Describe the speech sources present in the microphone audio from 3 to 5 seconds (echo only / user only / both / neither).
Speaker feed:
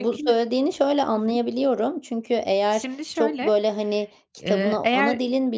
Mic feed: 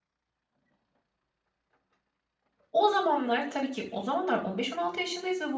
user only